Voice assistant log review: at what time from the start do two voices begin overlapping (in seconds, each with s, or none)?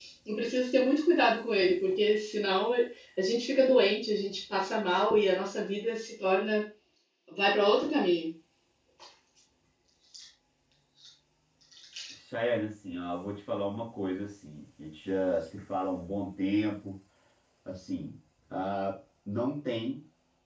none